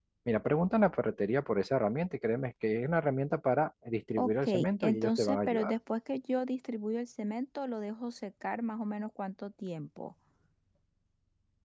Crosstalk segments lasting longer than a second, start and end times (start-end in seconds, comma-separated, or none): 4.2-5.7